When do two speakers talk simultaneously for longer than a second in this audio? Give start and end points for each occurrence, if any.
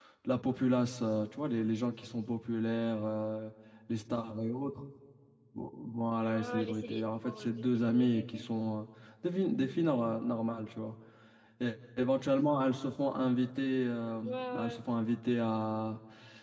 6.3-8.4

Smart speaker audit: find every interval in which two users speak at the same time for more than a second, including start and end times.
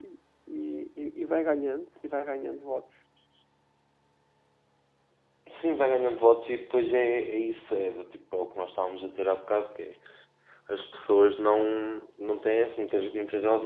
none

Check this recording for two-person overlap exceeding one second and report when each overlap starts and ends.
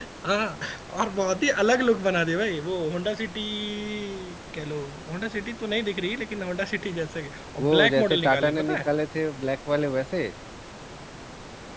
7.6-8.9

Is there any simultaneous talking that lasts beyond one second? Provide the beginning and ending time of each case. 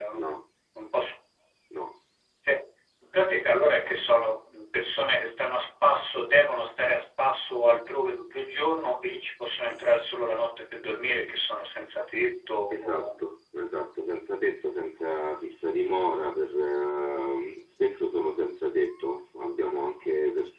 none

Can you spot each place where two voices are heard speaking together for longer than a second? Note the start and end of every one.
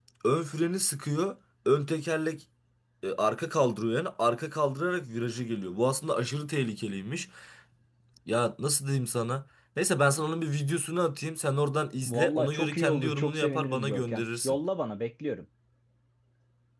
12.1-14.6

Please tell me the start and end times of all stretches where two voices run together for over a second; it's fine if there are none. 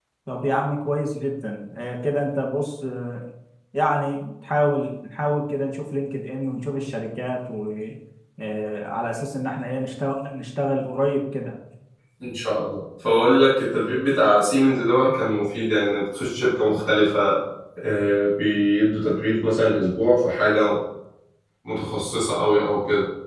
none

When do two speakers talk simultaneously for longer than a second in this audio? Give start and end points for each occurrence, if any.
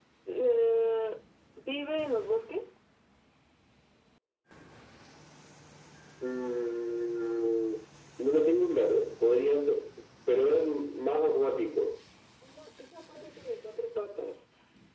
none

